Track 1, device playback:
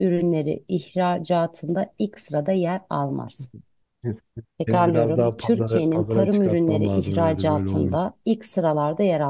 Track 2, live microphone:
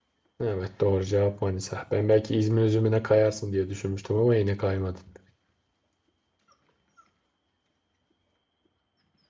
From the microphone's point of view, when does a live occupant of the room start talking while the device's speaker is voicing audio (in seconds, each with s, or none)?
0.4 s